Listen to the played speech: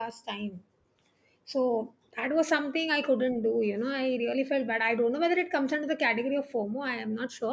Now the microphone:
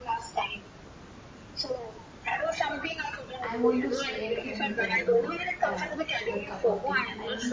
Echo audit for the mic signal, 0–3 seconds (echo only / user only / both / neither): echo only